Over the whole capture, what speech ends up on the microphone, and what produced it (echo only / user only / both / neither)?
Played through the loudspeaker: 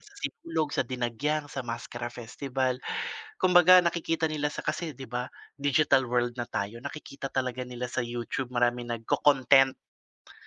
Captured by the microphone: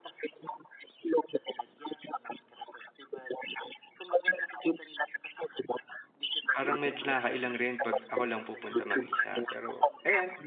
both